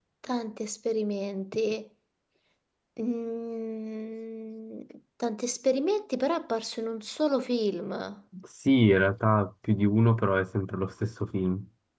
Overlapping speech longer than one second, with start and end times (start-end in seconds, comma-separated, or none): none